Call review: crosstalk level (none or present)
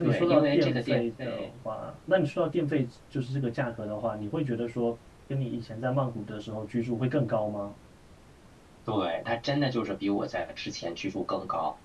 present